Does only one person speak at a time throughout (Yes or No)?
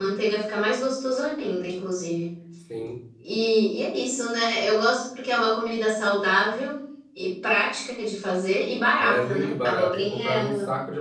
No